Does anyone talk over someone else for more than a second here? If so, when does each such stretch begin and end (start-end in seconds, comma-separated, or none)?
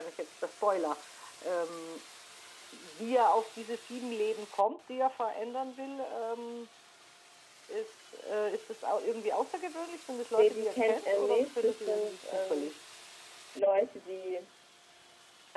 10.4-12.7